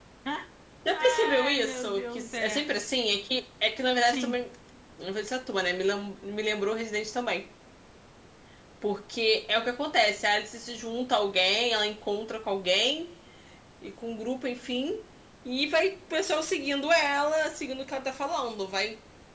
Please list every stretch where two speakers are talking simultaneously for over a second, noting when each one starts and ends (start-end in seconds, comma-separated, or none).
0.9-2.6